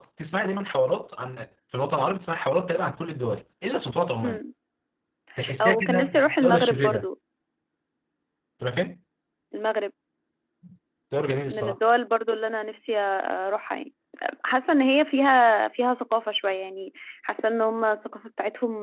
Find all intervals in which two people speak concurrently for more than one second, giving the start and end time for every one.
5.6-7.1

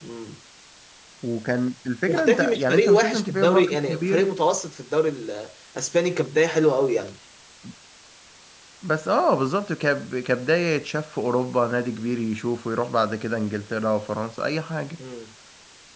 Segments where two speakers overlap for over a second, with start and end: 2.1-4.3

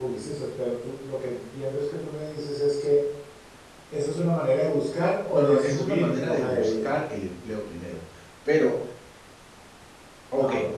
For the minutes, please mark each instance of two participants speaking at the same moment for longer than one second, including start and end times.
5.3-6.9

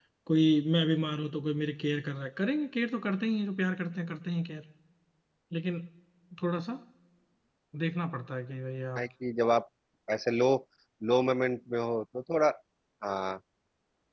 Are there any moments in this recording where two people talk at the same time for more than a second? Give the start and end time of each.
none

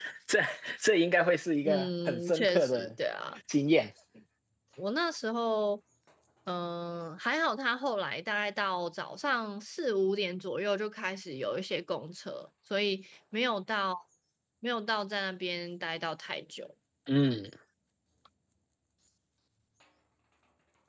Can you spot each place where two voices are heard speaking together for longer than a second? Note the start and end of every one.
1.6-2.9

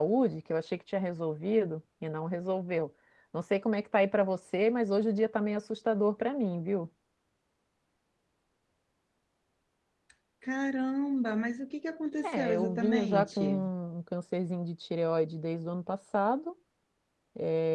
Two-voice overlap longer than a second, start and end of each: 12.2-13.6

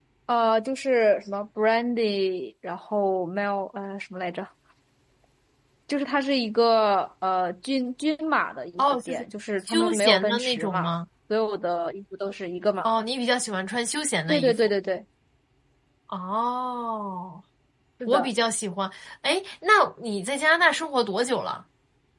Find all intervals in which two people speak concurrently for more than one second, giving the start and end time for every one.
9.7-10.9

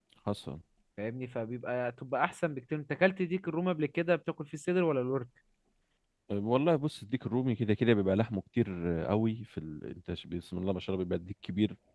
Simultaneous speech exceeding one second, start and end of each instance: none

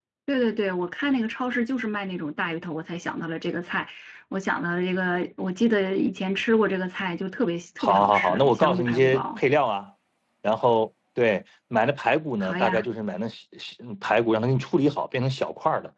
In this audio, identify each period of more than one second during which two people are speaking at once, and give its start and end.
7.8-9.4

